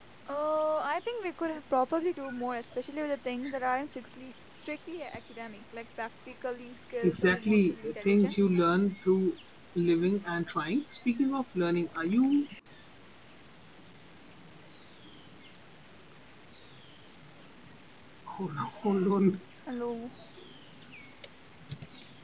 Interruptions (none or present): present